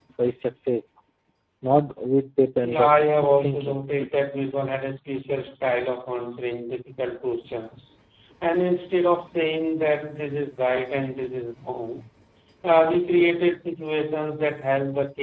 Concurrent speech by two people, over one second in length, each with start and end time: 2.6-3.8

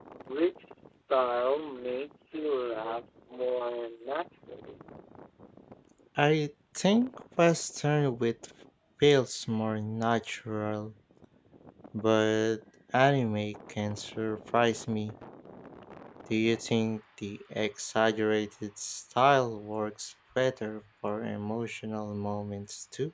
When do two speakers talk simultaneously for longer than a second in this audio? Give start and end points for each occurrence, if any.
none

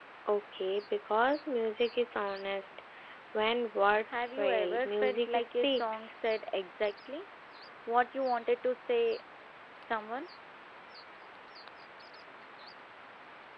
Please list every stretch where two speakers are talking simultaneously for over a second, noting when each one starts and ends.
4.1-6.1

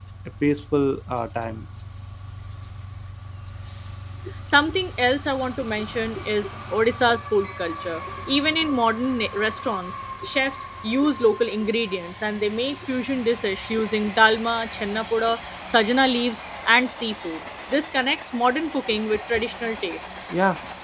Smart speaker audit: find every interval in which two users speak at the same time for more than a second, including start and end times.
none

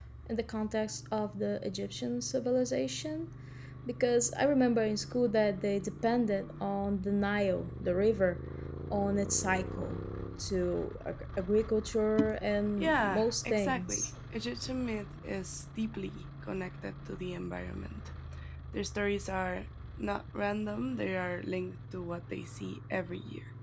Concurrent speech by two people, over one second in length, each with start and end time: 12.8-14.1

